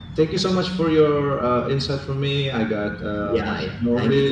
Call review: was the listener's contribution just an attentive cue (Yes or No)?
No